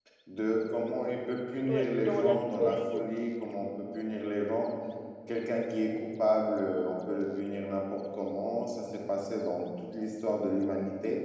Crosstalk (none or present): present